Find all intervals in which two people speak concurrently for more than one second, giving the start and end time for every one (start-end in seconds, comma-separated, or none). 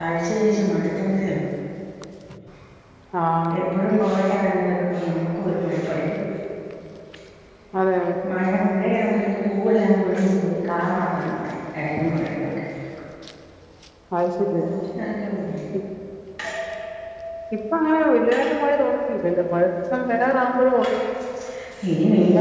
none